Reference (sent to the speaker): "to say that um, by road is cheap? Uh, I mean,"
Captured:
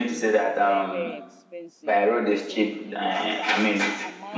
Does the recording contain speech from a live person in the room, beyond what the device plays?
Yes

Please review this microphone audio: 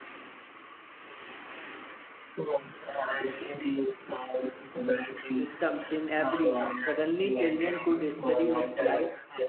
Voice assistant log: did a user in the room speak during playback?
Yes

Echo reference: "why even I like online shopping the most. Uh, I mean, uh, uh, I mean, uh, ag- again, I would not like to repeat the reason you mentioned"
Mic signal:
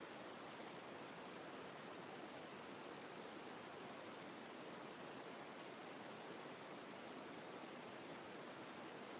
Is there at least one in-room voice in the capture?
No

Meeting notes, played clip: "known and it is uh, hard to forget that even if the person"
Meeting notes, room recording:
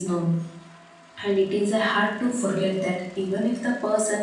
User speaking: No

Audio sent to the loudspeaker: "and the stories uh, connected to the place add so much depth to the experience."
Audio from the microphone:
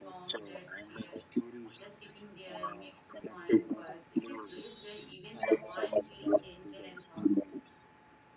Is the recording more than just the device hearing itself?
Yes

